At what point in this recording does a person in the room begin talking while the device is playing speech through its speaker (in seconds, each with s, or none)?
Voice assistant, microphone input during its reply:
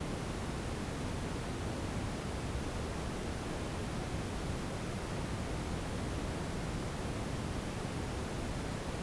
none